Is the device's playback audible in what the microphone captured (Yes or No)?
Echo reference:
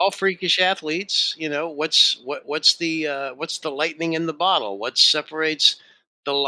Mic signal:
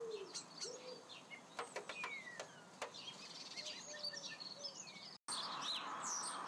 No